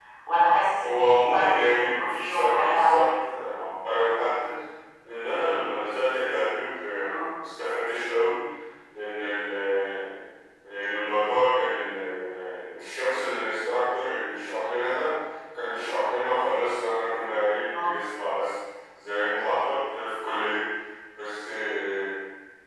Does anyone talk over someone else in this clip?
Yes, from 0.8 s

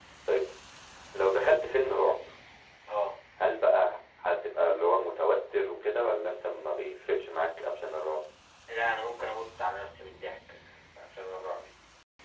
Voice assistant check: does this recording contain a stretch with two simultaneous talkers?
No

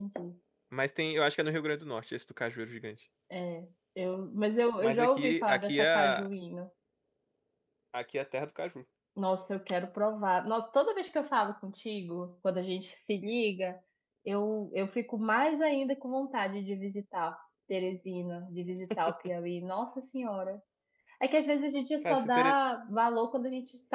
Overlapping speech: Yes, from 4.8 s

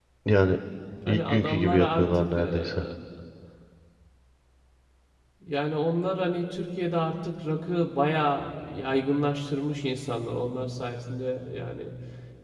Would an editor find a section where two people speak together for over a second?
Yes, from 1.1 s

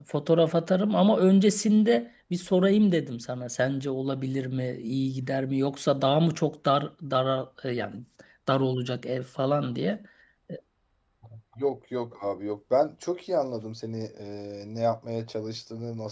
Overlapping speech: No

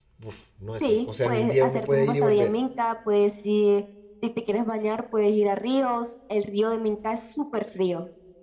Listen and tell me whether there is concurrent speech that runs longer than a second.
Yes, from 0.8 s

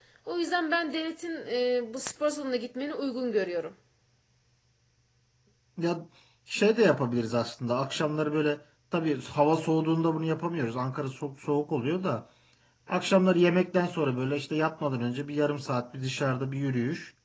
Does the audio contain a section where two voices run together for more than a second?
No

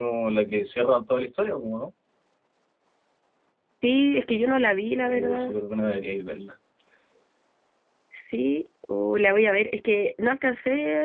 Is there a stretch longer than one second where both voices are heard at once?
No

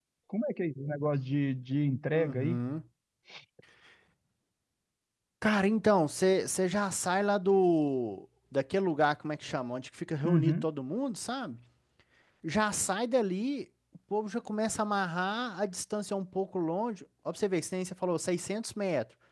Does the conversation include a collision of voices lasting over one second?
No

